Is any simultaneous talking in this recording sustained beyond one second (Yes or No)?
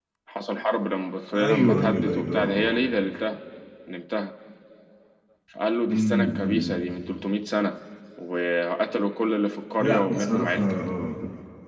Yes